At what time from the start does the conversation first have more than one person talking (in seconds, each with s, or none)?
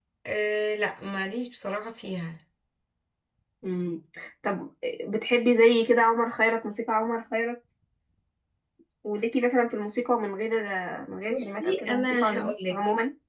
11.3 s